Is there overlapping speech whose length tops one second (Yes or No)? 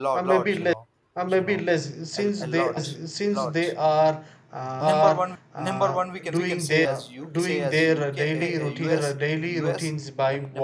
Yes